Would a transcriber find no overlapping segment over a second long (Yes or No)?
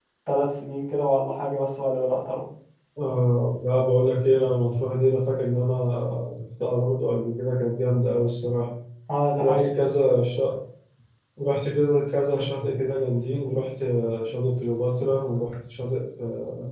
Yes